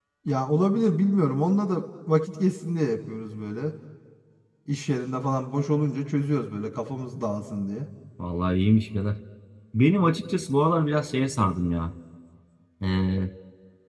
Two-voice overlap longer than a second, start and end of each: none

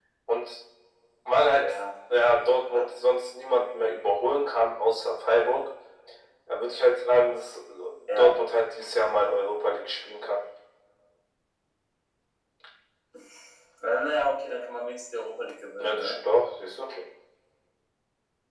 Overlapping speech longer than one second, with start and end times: none

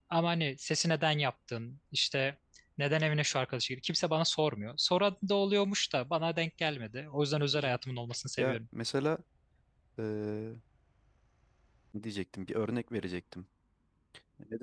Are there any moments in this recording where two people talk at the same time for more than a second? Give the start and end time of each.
none

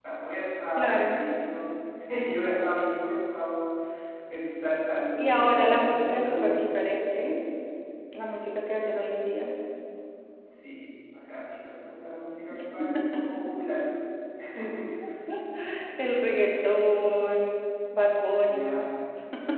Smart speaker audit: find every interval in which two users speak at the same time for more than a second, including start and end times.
5.2-6.7

